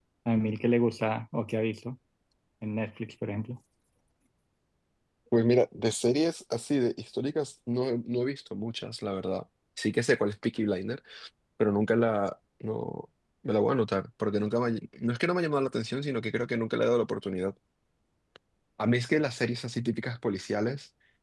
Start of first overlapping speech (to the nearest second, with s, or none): none